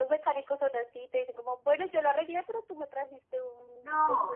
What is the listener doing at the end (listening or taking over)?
taking over